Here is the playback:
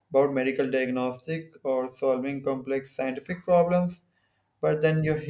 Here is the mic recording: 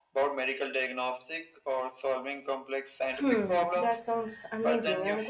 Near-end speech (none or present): present